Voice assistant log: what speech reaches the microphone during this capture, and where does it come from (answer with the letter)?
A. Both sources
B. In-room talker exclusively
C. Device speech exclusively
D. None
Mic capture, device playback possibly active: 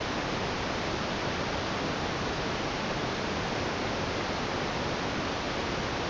D